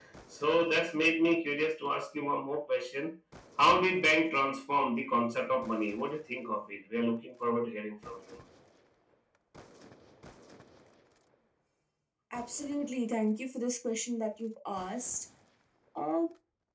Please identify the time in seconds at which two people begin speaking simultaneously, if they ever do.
none

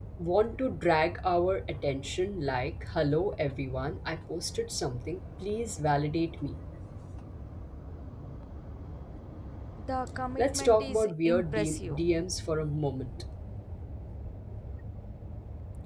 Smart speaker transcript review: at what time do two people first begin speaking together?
10.4 s

